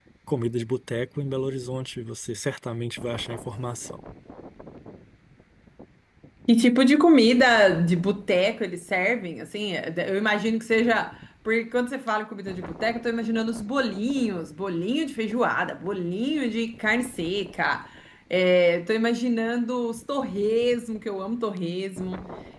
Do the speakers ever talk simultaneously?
No

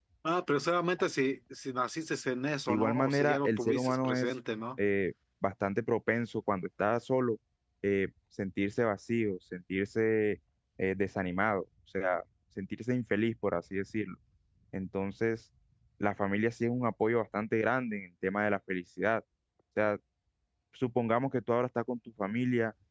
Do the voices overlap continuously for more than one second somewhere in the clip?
Yes, from 2.7 s

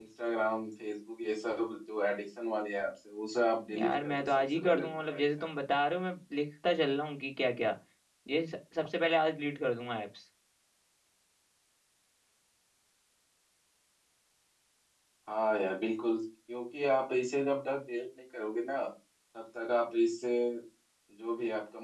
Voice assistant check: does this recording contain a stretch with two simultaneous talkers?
Yes, from 3.7 s

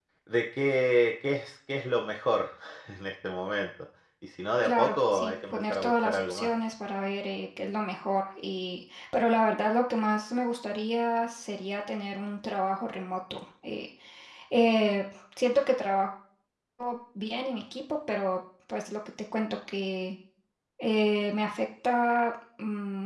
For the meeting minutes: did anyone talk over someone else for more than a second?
Yes, from 4.6 s

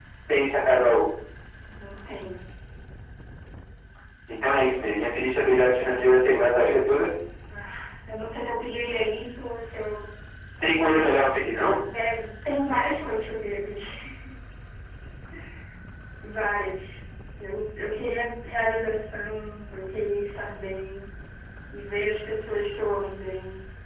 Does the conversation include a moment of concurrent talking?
No

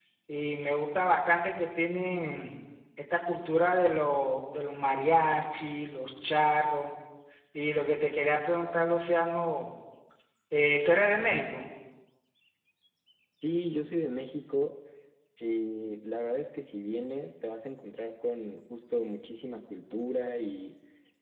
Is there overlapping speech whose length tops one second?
No

